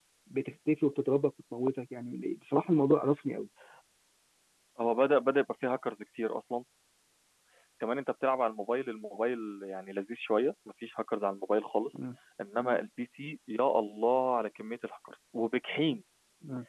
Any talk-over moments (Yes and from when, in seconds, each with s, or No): No